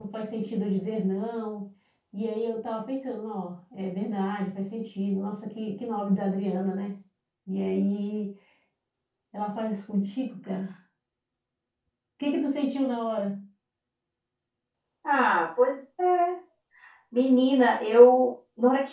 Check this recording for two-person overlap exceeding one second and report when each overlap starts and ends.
none

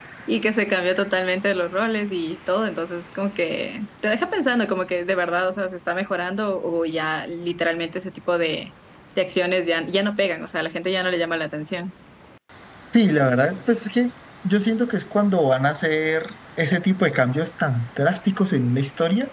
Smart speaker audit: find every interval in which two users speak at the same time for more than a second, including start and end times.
none

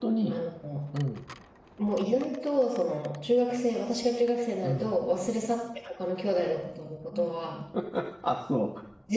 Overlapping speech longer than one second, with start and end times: none

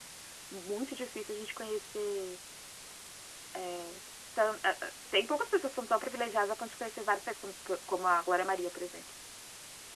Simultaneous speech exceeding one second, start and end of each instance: none

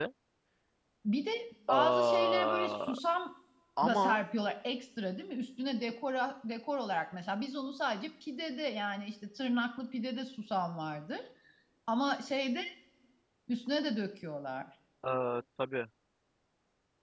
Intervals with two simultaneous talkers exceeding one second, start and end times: 1.7-2.9

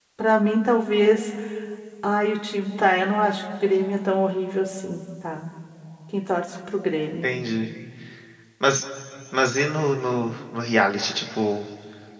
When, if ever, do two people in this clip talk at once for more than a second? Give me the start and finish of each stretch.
none

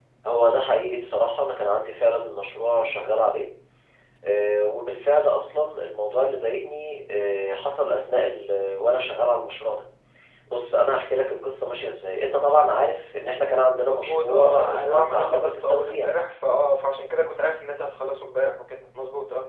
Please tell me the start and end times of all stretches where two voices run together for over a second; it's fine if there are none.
13.8-16.1

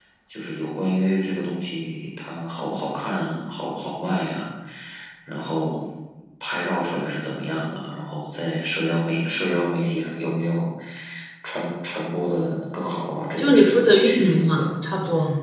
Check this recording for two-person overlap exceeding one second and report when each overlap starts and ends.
13.4-14.7

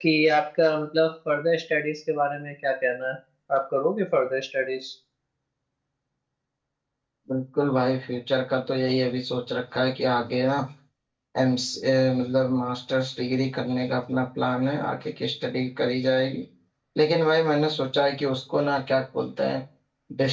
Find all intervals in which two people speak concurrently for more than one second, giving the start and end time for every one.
none

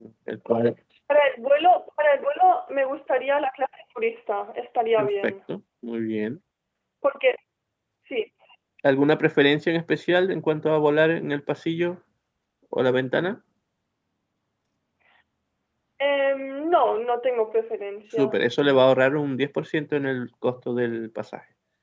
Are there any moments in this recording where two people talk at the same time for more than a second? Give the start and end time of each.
none

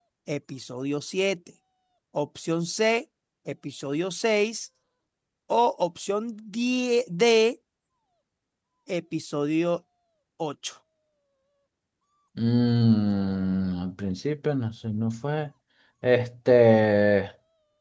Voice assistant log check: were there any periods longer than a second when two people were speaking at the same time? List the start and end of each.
none

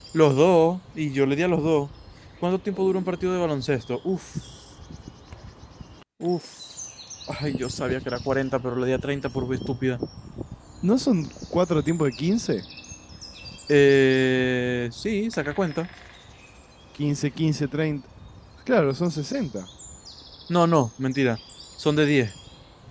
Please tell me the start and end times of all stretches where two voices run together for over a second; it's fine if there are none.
none

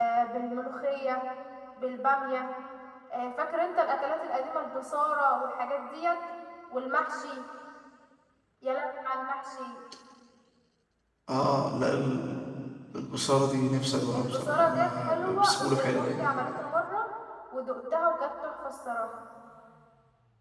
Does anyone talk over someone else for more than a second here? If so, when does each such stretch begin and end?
14.1-16.2

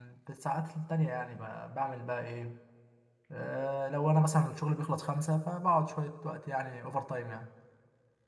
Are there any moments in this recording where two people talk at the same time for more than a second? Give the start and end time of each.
none

